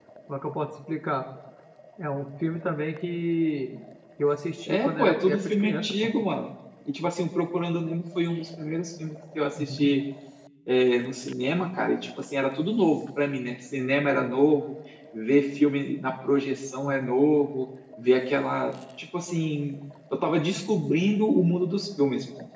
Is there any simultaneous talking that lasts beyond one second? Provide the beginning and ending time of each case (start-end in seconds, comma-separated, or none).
4.7-6.0